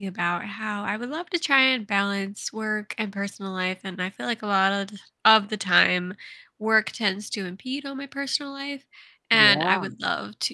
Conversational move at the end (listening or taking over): listening